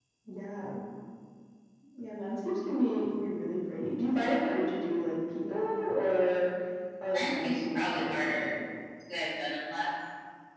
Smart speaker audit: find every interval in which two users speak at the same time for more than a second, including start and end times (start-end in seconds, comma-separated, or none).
7.1-8.5